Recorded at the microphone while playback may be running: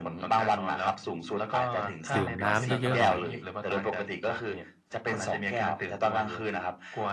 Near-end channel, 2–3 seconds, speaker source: both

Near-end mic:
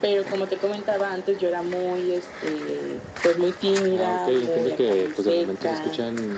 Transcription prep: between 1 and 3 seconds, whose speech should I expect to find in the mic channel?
echo only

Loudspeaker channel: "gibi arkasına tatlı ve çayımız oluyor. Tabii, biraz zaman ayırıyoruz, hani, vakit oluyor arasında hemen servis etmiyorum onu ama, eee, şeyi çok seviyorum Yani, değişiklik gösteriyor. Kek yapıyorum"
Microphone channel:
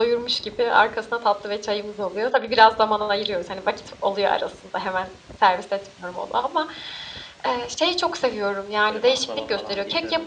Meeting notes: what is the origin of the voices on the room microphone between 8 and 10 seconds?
both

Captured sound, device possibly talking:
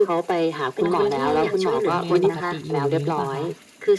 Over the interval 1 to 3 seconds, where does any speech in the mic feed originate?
both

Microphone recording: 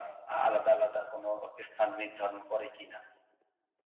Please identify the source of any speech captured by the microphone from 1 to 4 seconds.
echo only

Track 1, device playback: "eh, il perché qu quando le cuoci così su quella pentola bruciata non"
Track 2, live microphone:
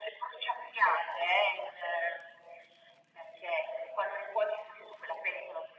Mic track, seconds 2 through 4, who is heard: echo only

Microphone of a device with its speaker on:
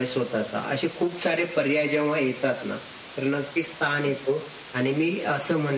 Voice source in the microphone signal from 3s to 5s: echo only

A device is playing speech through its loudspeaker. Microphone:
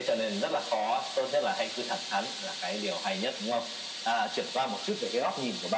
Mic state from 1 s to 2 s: echo only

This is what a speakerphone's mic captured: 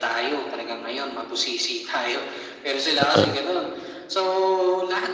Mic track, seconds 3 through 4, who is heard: both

